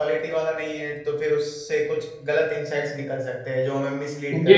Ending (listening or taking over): taking over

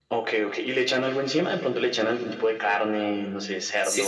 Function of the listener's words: taking over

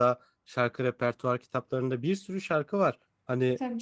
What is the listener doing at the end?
listening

